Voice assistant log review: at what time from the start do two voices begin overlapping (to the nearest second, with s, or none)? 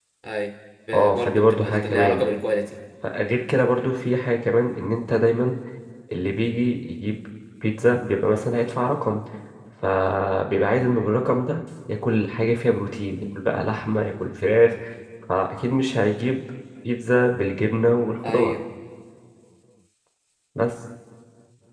1 s